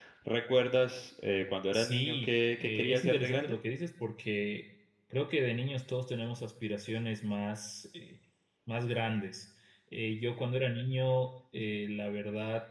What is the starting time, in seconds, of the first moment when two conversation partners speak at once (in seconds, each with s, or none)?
1.7 s